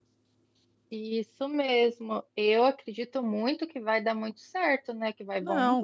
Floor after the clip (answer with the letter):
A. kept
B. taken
B